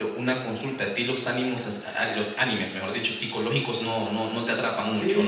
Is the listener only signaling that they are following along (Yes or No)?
No